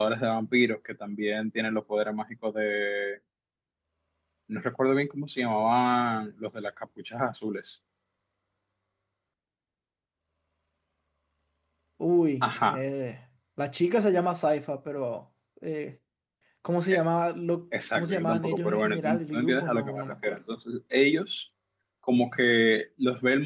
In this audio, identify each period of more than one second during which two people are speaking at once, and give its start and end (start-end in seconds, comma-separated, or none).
17.9-20.4